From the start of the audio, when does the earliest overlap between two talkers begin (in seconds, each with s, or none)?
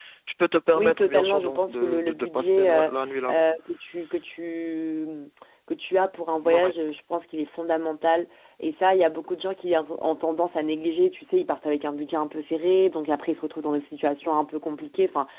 0.7 s